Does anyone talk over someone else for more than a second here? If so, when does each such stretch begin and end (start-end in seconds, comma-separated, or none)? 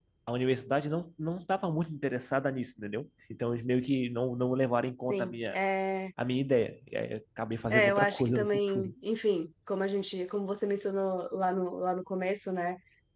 7.7-8.9